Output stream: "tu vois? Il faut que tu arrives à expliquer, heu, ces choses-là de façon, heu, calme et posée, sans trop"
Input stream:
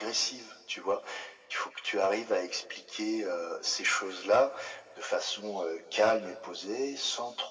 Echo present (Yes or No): Yes